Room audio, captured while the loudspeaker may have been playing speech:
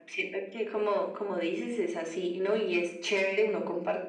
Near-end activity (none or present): none